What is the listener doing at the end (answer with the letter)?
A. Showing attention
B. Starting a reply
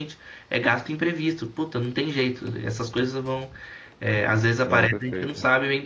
A